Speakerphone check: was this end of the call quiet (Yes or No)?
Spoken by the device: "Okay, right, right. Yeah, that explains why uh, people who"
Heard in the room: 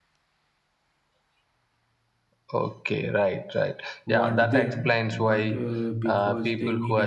No